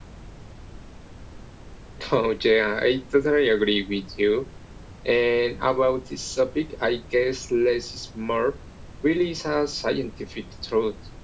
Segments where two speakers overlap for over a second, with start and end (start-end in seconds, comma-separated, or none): none